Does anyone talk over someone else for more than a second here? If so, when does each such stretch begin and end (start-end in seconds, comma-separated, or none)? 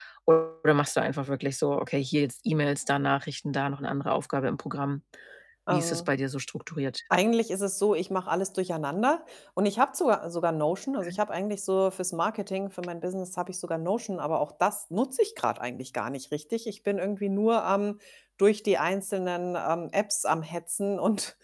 none